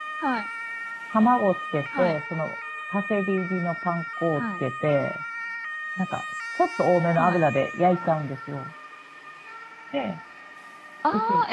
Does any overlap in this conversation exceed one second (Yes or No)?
No